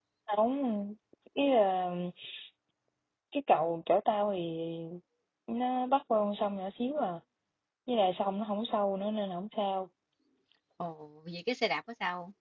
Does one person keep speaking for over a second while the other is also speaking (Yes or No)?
No